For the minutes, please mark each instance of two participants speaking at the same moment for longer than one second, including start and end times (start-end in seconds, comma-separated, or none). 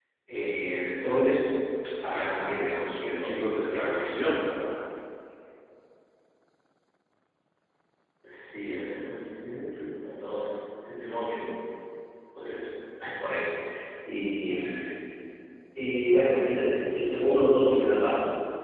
2.2-4.4